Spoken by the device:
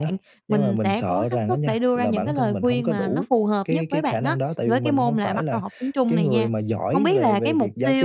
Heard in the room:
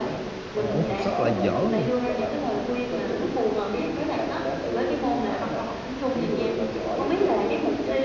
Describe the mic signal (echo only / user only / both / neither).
both